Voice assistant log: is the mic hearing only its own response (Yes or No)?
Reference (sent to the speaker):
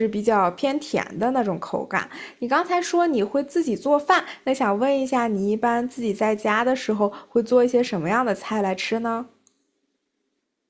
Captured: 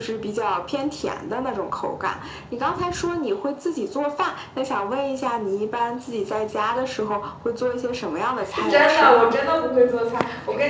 No